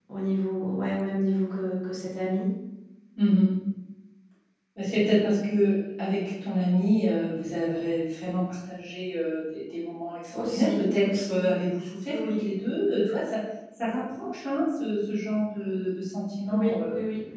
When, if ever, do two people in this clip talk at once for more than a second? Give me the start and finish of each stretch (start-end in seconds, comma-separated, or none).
10.3-11.5